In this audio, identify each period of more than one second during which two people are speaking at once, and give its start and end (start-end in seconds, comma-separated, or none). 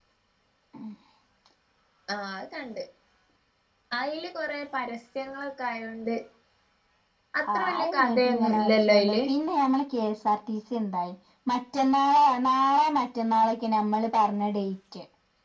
7.5-9.2